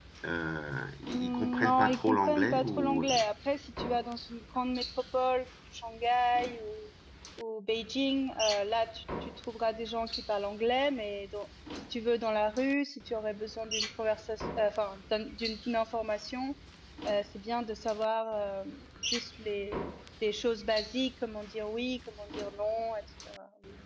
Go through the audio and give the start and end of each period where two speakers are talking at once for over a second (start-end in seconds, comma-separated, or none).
1.1-3.0